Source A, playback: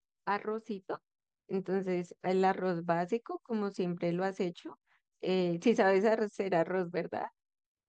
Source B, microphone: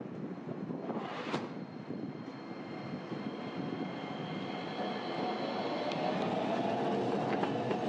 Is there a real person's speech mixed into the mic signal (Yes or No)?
No